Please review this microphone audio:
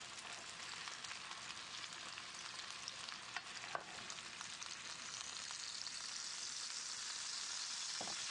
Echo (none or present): none